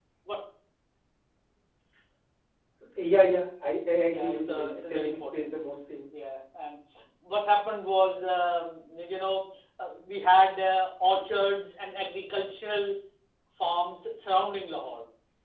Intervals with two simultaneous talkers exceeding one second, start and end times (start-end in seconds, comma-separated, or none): 4.0-5.5